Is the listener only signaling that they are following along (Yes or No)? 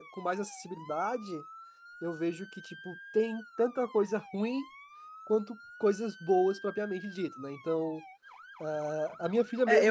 No